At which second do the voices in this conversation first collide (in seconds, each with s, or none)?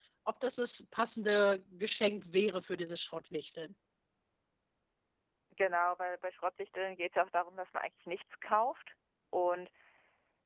none